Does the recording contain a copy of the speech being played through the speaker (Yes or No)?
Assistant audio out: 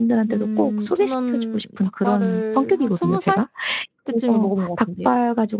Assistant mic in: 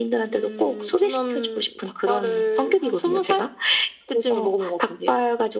Yes